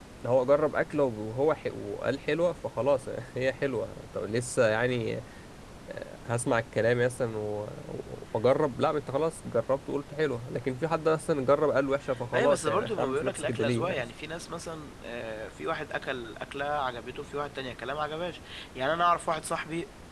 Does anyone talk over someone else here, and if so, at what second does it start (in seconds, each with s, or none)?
12.1 s